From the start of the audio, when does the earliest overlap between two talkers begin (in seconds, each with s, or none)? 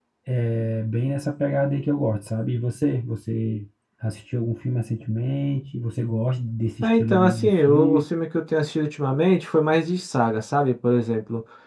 6.8 s